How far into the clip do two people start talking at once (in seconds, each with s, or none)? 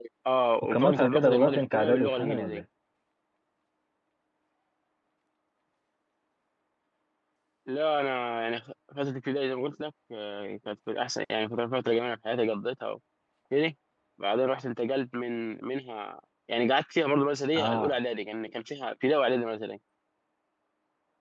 0.6 s